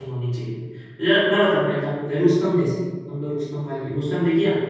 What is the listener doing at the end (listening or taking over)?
taking over